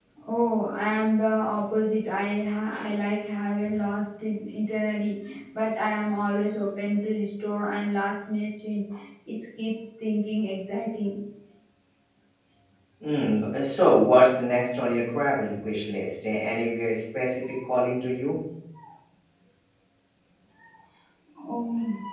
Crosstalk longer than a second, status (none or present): none